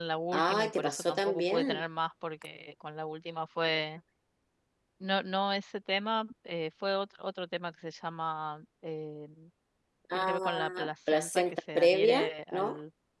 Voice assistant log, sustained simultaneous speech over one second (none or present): present